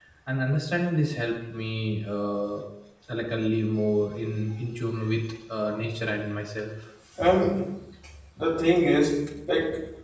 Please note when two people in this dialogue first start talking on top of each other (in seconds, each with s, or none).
none